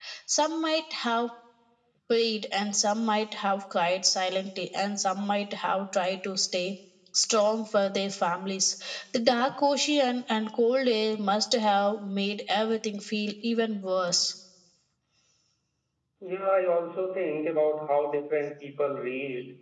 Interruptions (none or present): none